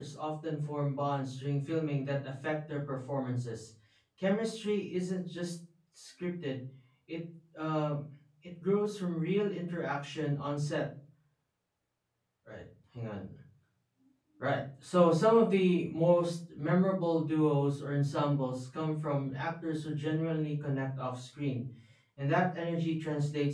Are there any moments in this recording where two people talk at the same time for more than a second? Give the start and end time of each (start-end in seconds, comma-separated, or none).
none